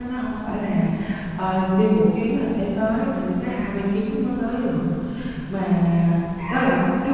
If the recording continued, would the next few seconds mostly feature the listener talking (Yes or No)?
No